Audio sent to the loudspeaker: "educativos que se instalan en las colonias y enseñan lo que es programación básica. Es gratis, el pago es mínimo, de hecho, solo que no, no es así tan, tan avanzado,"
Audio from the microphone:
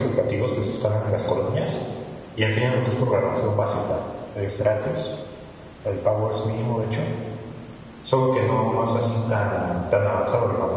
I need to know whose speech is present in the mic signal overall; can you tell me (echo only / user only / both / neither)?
echo only